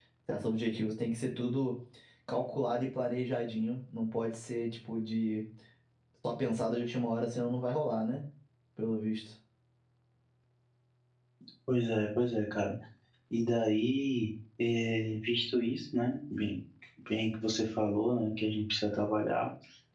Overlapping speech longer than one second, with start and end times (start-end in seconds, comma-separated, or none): none